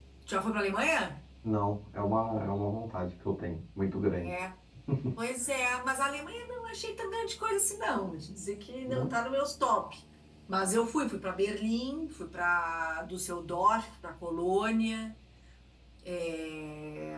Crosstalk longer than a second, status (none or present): none